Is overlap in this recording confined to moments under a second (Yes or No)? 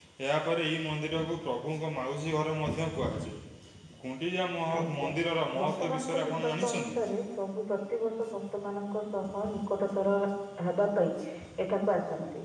No